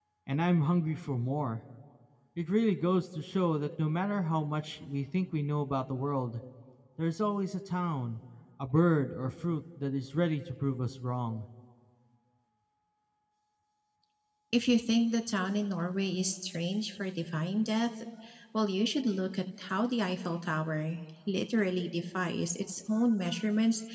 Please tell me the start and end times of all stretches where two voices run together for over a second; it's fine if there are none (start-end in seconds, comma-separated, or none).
none